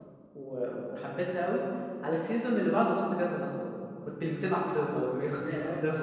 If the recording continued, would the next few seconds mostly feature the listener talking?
No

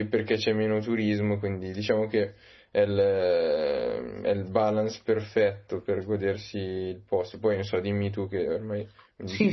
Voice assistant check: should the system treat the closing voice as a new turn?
Yes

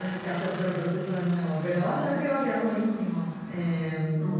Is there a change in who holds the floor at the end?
No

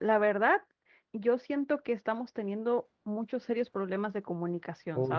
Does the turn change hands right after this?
Yes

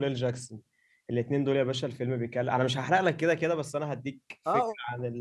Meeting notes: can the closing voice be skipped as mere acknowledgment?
No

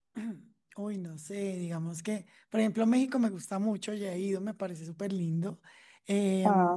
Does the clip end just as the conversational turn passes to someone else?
No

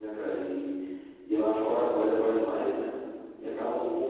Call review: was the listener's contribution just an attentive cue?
No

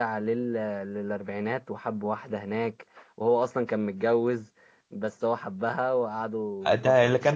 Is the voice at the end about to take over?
Yes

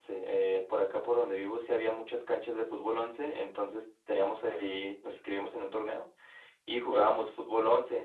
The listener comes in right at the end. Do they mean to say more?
No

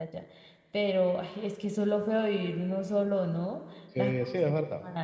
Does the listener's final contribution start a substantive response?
Yes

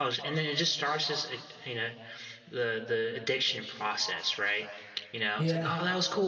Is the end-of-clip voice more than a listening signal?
No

